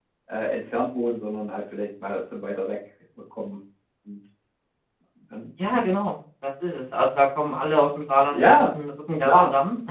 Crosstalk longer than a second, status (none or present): none